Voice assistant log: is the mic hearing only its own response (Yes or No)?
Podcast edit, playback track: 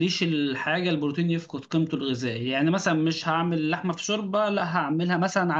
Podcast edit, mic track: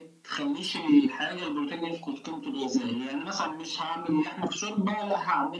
Yes